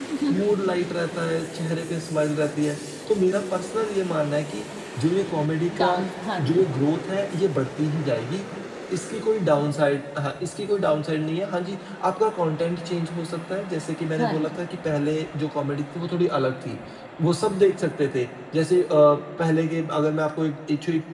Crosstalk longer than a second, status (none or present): none